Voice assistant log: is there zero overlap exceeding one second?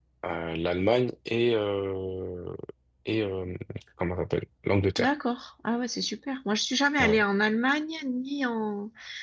Yes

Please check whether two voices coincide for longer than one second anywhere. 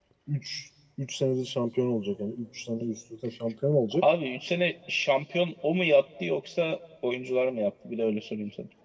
No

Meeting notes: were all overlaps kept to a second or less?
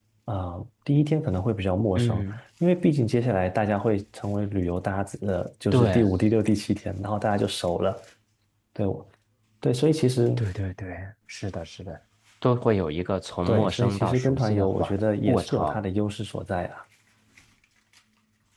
No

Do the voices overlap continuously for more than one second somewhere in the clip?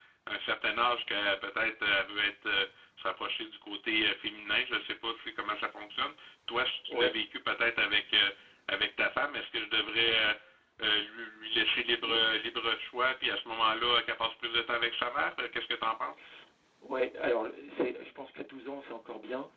No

